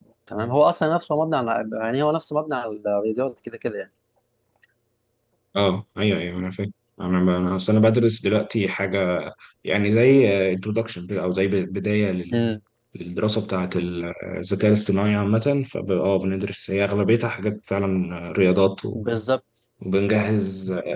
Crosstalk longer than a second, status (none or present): none